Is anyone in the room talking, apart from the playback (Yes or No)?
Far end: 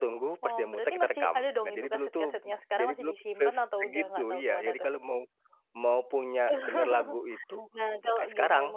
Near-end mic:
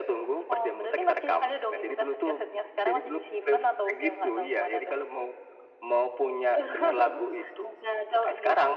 No